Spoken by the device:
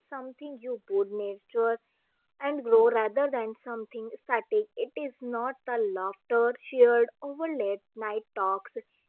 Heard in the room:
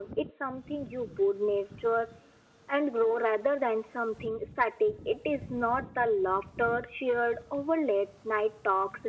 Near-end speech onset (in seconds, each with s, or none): none